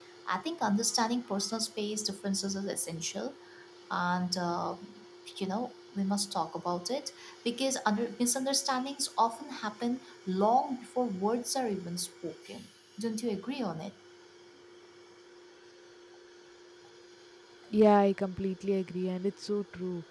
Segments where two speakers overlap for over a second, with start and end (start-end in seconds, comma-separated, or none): none